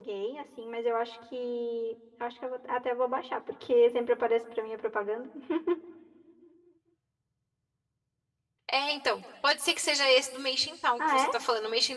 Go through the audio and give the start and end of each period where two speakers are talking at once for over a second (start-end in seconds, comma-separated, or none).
none